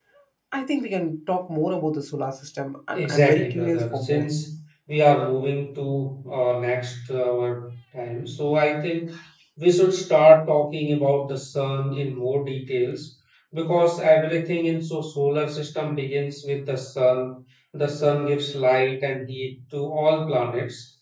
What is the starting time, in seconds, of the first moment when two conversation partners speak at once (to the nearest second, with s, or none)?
3 s